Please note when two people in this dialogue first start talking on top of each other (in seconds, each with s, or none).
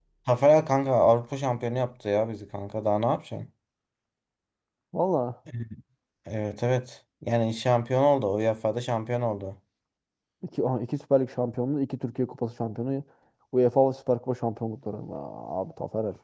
none